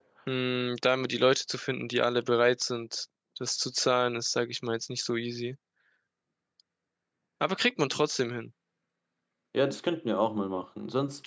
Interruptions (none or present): none